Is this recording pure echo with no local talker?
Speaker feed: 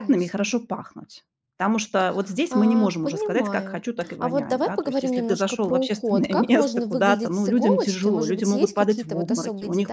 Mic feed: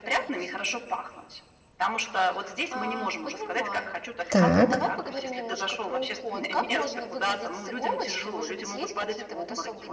No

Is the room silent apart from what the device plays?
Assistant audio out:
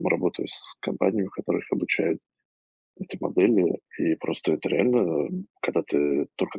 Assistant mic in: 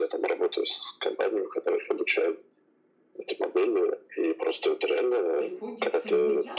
No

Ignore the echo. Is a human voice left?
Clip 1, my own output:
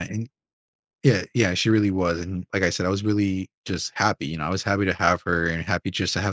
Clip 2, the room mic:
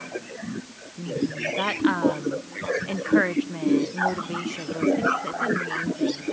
Yes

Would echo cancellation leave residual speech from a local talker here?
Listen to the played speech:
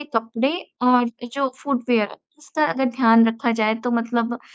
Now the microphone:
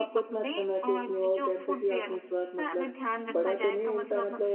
Yes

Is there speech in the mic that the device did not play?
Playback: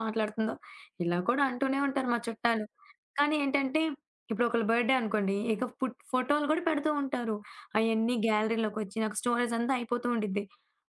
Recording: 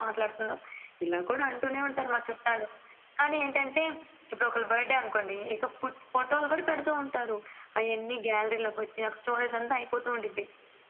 No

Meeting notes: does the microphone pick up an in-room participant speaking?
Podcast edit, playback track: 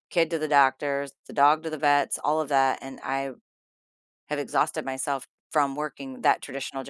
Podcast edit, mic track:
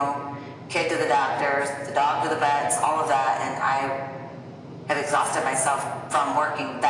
No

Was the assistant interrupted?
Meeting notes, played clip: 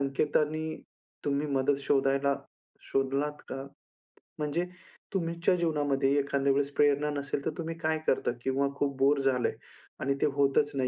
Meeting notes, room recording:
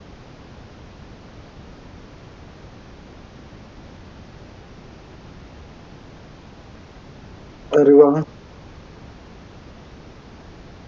Yes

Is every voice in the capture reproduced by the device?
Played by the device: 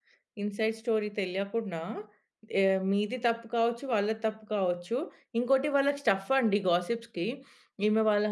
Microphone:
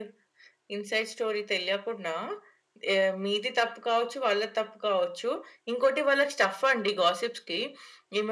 Yes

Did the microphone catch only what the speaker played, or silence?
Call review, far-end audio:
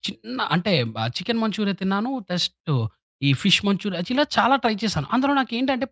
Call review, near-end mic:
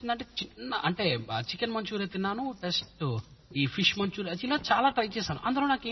Yes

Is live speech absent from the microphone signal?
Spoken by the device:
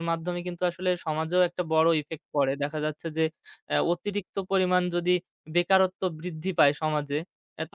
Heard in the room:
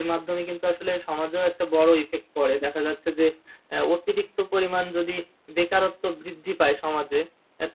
Yes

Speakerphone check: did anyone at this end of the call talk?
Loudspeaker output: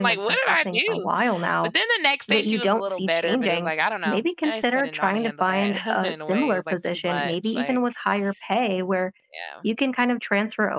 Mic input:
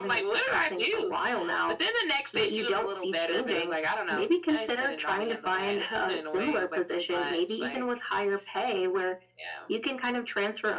No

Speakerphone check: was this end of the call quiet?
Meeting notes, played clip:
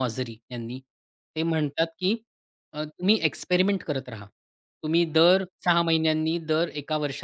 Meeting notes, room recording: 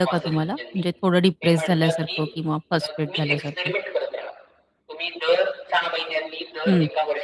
No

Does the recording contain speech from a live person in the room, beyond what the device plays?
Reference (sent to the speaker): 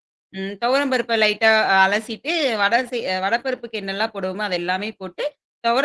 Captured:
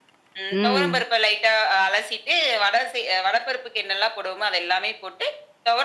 Yes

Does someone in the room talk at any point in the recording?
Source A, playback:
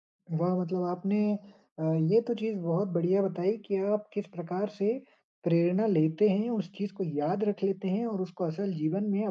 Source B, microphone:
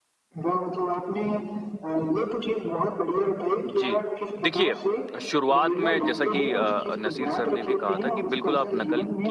Yes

